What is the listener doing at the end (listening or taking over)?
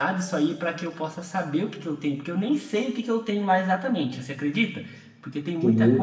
listening